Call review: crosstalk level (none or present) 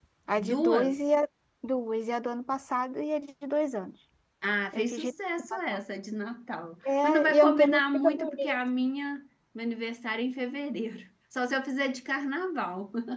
present